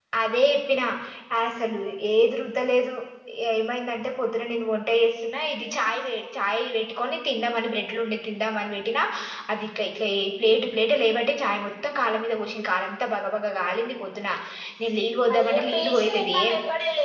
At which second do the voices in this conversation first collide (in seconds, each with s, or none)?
15.3 s